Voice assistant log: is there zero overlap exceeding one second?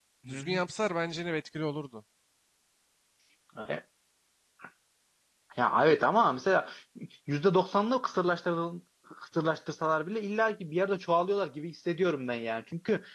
Yes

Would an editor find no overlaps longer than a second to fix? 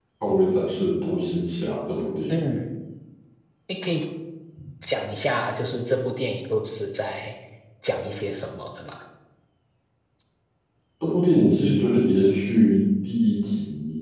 Yes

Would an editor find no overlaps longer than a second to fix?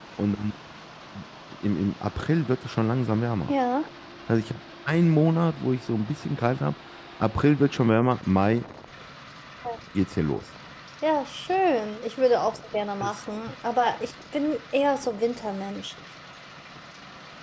Yes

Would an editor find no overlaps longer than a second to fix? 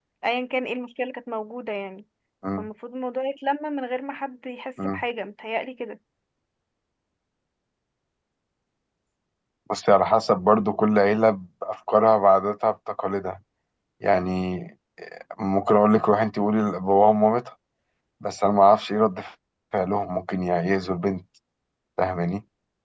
Yes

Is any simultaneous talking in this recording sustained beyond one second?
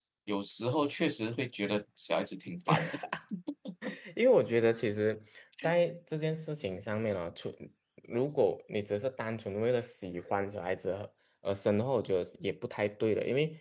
No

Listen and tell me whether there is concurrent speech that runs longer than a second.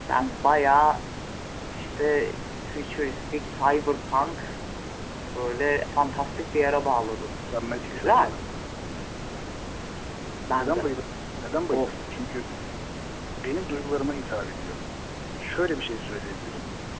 No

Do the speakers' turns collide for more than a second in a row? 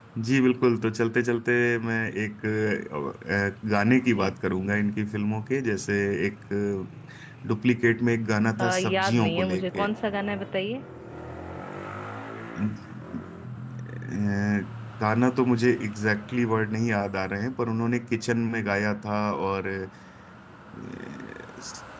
Yes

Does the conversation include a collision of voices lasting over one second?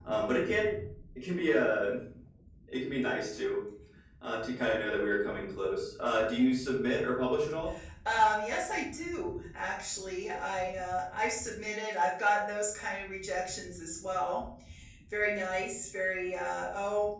No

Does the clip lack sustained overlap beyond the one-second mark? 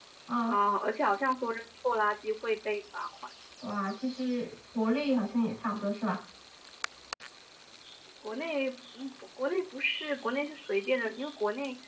Yes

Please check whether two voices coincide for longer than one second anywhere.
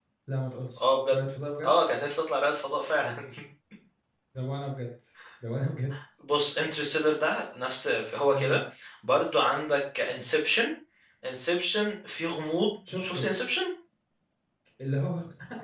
No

